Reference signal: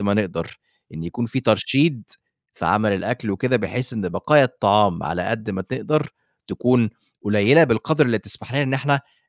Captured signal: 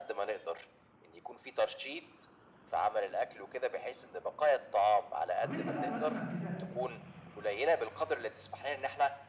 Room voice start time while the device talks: 5.4 s

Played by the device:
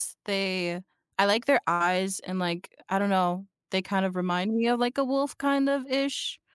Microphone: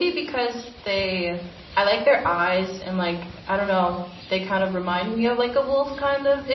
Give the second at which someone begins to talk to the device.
none

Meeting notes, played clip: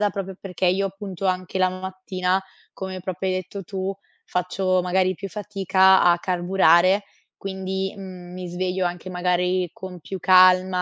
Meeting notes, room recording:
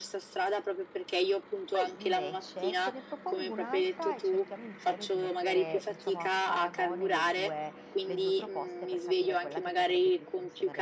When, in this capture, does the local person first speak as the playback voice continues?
1.7 s

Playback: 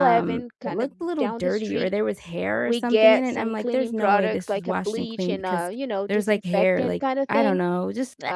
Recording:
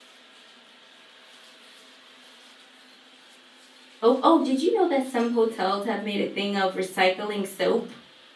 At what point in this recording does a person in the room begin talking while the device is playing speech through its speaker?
4.0 s

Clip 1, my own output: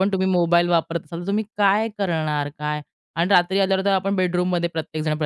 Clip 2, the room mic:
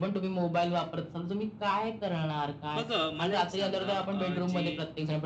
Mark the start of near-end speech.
2.8 s

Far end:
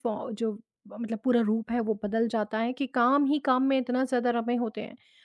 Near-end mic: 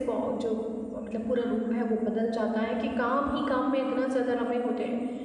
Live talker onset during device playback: none

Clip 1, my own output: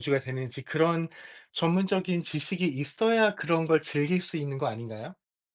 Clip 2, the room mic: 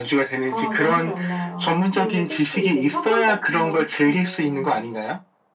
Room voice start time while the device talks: 0.4 s

